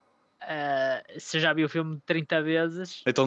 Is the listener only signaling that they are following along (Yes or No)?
No